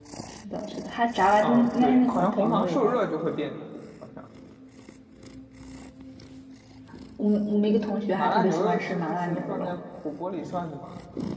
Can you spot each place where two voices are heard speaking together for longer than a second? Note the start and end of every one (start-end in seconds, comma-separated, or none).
1.4-3.0, 8.2-9.7